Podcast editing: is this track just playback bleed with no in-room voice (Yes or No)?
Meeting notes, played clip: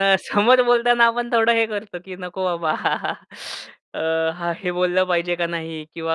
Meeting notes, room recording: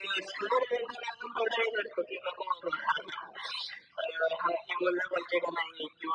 Yes